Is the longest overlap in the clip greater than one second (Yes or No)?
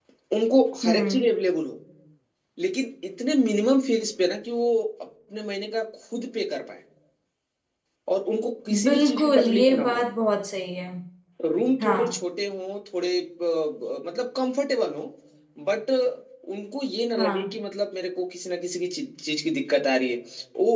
Yes